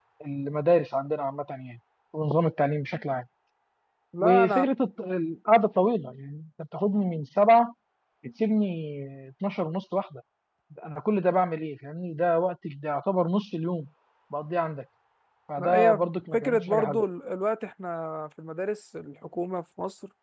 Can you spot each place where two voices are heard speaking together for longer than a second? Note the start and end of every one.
15.6-17.0

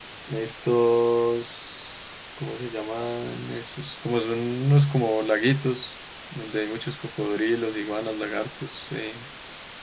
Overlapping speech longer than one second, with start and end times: none

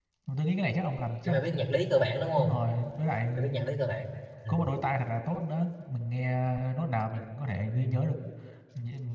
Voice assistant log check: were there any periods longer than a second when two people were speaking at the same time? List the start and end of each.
none

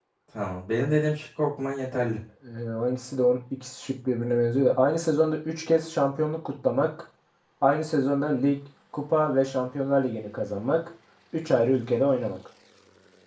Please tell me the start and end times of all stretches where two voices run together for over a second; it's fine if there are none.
none

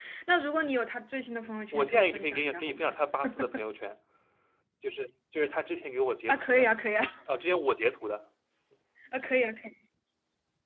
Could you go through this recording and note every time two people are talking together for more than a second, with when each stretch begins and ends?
1.7-3.0

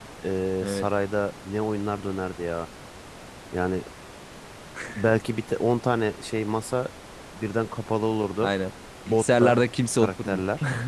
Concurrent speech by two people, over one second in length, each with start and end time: none

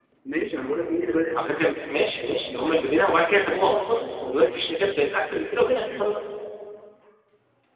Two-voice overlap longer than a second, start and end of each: none

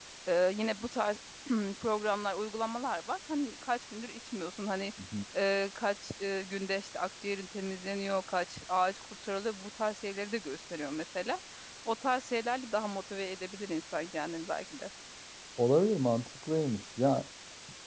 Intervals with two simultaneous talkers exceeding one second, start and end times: none

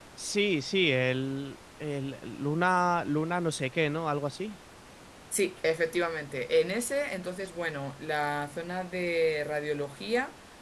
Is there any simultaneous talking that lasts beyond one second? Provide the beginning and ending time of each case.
none

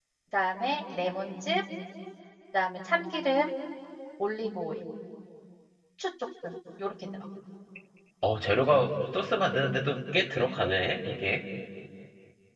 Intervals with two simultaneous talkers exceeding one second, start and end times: none

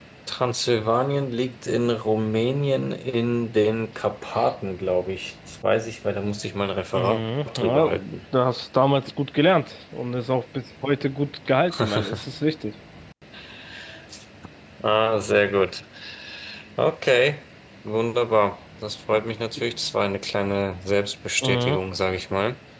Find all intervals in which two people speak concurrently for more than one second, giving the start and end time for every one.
6.9-8.1

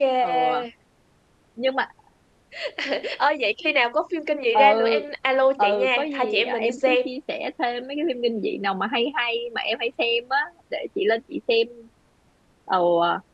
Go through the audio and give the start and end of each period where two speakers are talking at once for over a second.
5.6-7.0

